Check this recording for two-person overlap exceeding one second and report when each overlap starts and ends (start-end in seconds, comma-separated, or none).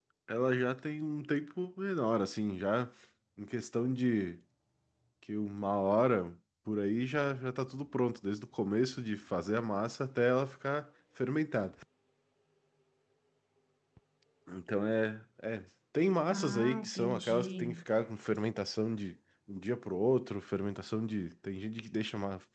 16.3-17.8